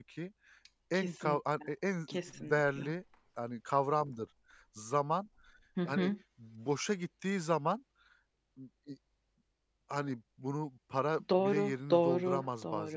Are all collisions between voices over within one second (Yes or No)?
No